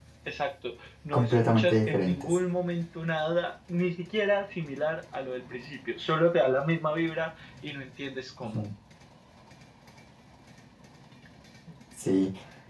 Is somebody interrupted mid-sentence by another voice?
Yes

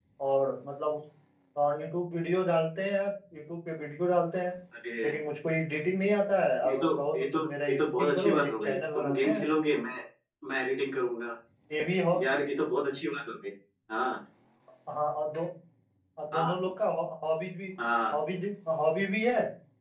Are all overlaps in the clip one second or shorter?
No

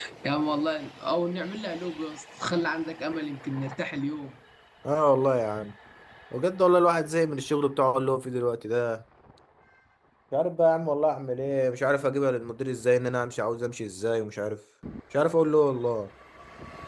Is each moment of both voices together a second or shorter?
Yes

